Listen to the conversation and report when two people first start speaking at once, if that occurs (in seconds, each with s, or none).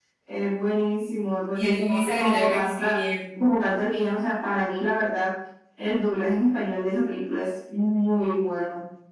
1.6 s